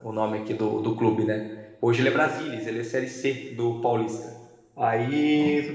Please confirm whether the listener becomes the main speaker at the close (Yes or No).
No